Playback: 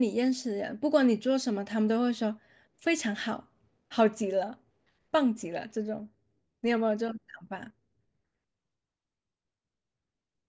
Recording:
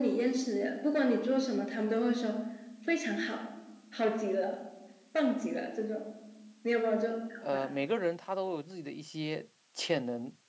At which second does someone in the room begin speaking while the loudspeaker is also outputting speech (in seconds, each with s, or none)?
7.4 s